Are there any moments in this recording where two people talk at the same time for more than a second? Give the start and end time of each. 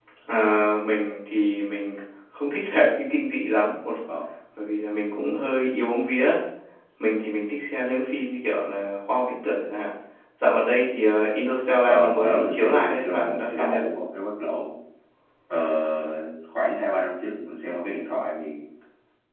11.8-13.8

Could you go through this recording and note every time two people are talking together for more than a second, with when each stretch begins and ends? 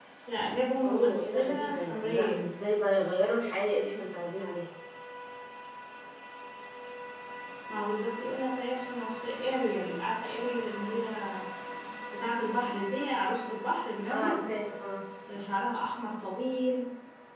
0.8-2.5

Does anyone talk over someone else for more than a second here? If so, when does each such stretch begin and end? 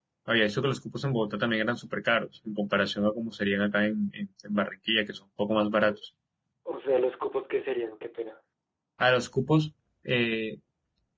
none

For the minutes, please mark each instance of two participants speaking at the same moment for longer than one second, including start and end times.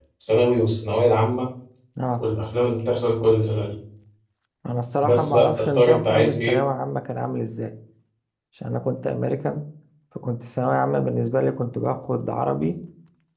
5.0-6.6

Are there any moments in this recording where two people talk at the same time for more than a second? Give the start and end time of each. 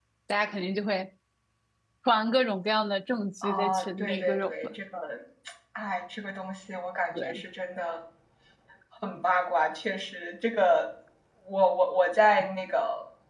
3.4-4.7

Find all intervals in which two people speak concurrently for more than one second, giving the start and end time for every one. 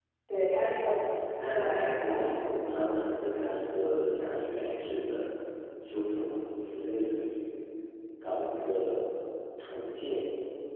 0.9-2.7

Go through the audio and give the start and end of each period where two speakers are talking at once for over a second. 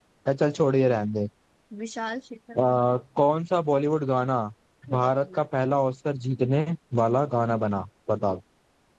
none

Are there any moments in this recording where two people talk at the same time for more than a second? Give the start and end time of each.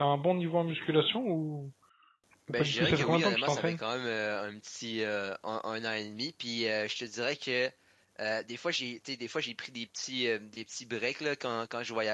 2.5-3.8

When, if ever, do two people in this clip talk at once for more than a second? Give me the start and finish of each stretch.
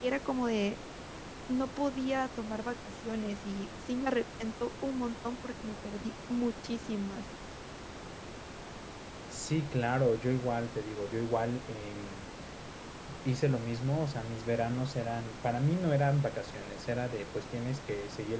none

